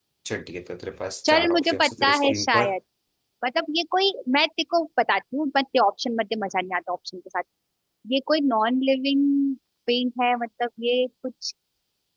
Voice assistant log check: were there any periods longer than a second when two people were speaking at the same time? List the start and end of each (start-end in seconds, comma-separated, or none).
1.2-2.7